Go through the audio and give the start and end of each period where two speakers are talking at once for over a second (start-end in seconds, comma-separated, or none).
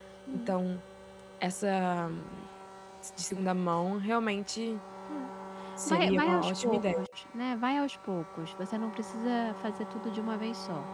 5.9-7.1